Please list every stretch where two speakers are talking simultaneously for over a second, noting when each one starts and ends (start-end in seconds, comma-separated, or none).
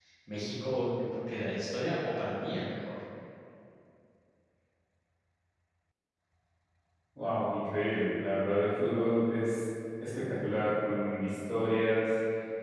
none